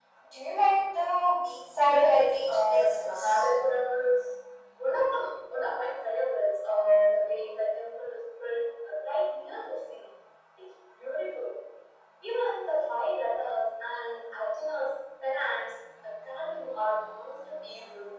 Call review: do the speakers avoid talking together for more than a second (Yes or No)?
No